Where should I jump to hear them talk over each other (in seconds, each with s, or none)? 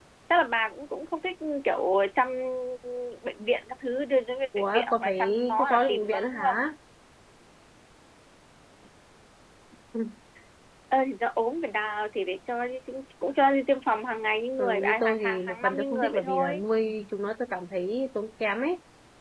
4.6 s